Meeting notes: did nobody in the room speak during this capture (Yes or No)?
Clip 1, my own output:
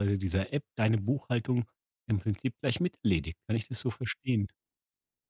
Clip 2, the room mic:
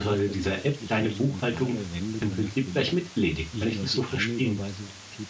No